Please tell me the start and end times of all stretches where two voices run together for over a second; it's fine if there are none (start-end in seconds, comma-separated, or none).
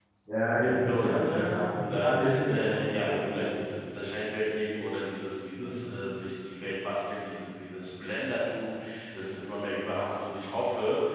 0.6-3.4